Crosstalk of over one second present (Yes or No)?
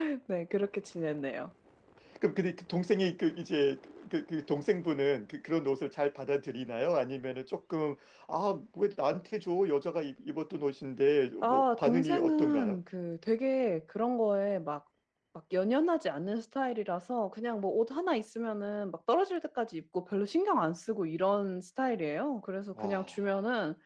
Yes